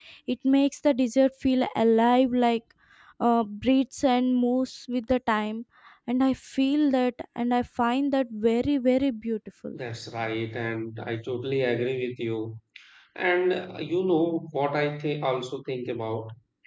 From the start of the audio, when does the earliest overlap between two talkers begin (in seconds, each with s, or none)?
none